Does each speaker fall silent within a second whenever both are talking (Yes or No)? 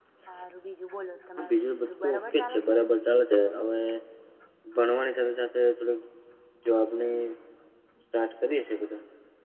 No